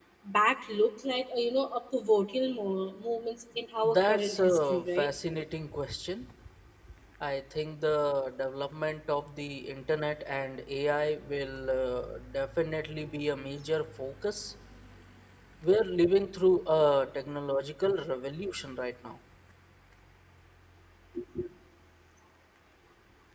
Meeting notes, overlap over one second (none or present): present